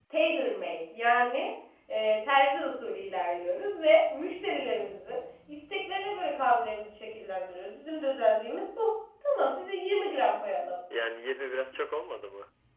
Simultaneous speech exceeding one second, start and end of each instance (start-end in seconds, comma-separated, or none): none